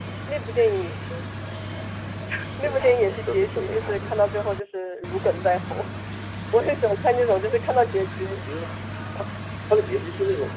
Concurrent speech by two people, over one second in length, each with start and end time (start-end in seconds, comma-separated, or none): 2.6-4.1